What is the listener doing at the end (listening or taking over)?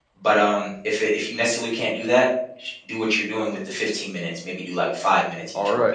taking over